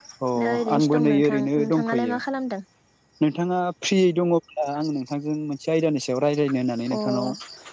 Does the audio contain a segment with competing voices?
Yes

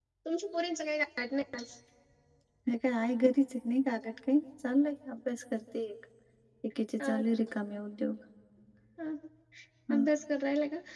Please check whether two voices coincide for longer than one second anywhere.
No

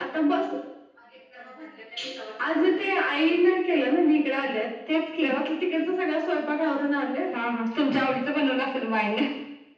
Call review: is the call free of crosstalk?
Yes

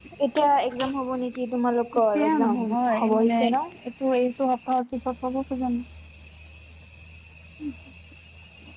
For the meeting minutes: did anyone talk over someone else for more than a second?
Yes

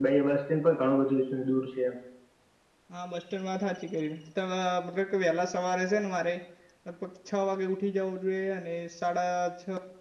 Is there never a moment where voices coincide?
Yes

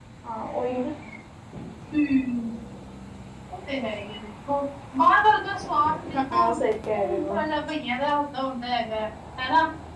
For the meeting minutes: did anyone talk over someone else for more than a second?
No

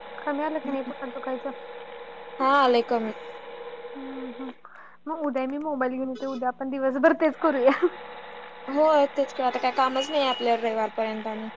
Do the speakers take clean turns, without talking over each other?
Yes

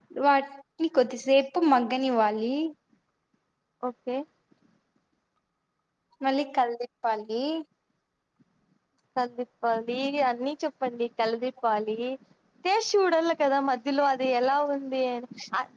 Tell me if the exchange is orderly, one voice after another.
Yes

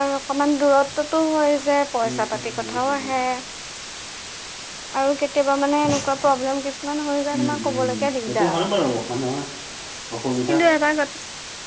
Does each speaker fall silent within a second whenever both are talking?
No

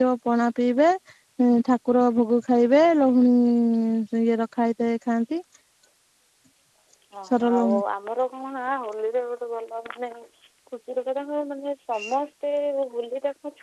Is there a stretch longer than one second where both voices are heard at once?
No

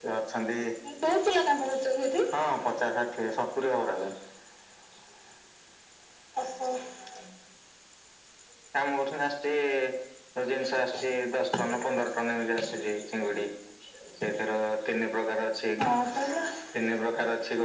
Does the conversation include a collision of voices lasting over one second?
No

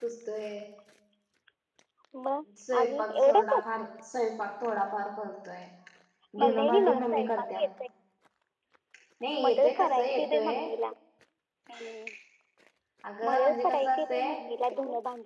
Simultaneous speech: Yes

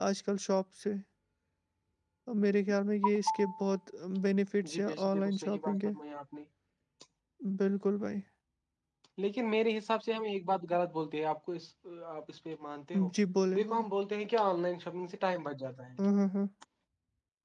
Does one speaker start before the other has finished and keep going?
Yes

